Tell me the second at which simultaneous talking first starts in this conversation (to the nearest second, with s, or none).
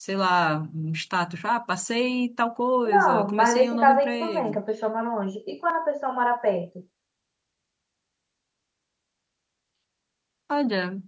3 s